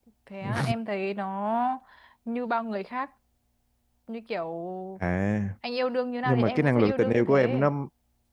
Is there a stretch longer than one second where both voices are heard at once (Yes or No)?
Yes